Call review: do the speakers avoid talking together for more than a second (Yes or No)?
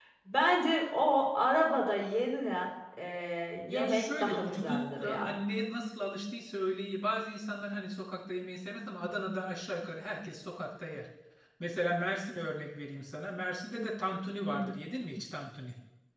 No